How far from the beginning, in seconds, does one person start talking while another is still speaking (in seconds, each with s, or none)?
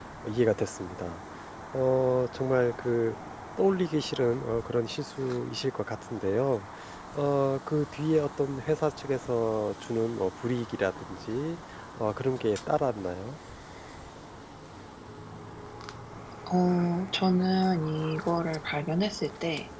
none